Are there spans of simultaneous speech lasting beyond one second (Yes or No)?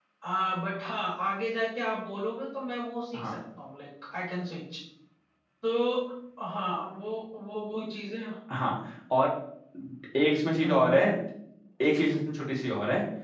No